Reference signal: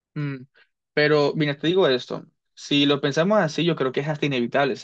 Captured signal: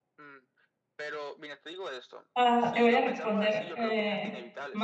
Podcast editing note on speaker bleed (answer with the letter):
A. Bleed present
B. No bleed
A